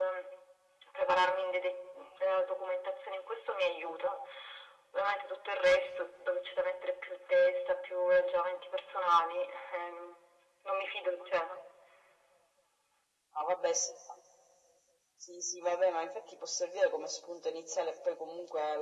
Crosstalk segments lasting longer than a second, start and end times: none

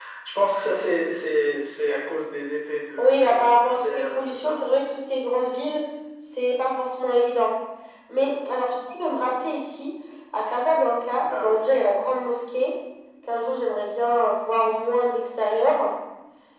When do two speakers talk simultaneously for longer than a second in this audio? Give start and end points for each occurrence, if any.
3.0-4.6

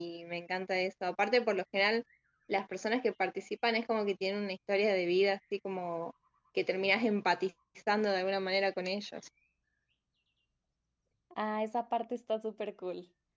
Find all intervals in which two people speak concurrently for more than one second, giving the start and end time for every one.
none

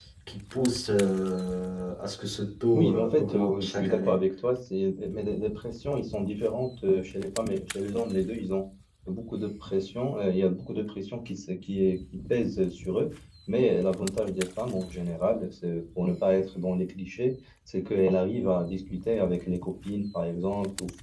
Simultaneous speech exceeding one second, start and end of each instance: 2.7-4.2

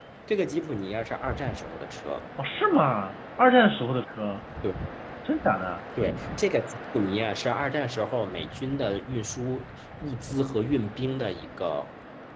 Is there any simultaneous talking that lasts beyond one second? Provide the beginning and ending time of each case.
none

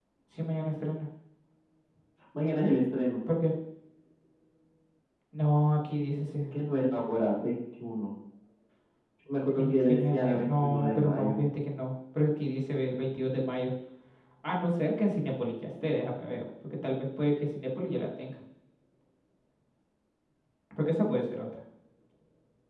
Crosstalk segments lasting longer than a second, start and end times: 9.6-11.4

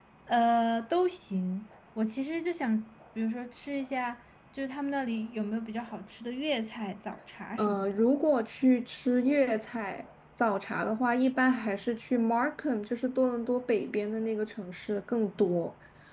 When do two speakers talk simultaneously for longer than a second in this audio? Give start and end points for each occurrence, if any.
none

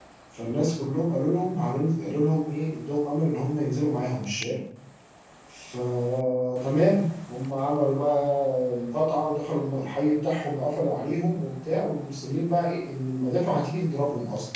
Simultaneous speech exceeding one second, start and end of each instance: none

